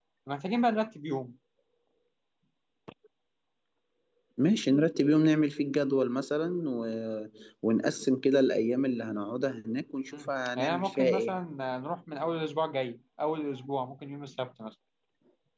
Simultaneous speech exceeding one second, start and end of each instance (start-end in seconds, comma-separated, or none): 10.1-11.4